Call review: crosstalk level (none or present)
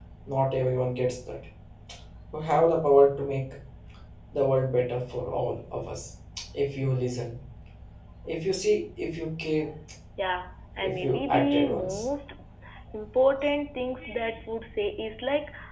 present